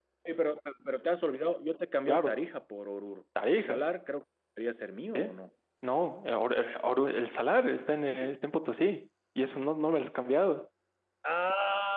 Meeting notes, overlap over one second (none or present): none